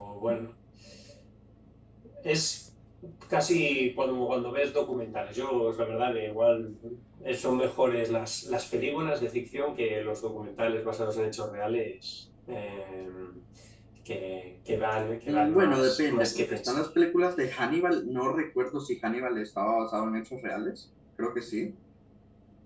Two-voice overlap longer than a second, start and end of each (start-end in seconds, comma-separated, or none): 15.3-16.8